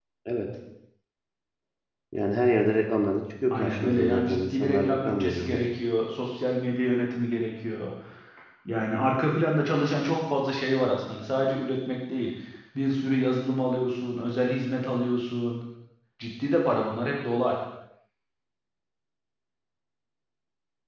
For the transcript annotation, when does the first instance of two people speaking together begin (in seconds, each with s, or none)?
3.5 s